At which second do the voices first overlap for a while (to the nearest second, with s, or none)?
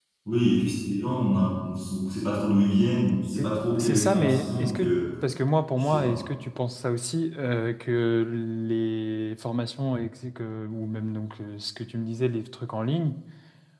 3 s